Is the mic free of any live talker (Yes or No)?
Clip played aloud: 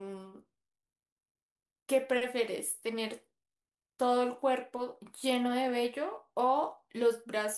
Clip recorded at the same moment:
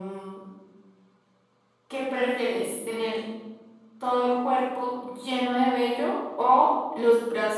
Yes